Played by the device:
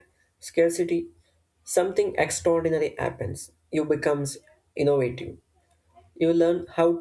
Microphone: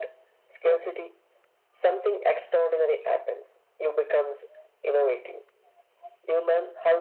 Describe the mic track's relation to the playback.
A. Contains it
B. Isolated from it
A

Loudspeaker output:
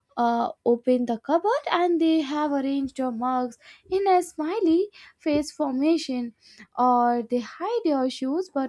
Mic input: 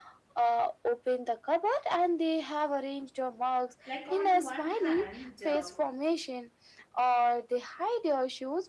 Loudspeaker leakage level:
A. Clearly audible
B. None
A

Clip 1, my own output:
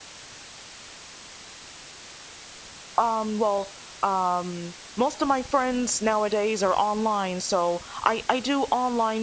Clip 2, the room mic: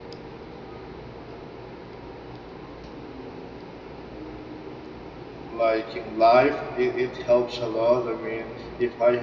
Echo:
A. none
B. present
A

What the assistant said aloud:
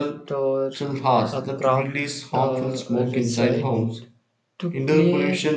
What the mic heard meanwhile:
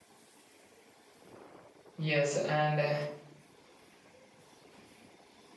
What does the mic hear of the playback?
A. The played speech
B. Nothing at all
B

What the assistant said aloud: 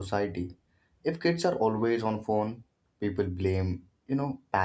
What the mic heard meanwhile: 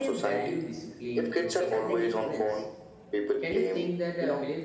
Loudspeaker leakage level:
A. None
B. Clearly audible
B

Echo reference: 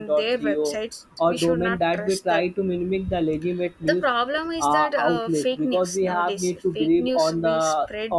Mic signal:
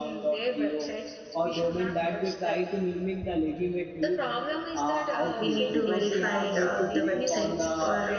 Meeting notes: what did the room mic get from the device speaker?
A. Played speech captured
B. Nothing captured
A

